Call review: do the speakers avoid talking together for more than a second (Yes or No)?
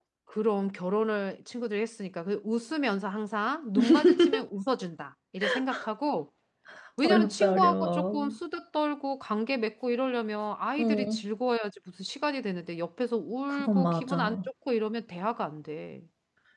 No